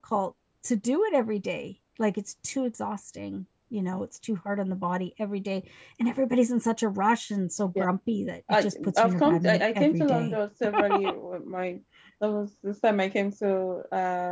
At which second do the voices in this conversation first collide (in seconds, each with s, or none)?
8.5 s